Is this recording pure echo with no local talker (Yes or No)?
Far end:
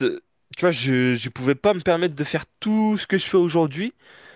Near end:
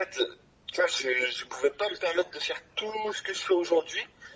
Yes